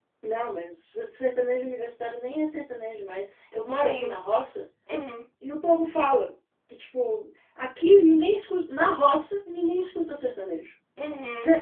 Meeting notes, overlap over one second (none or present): none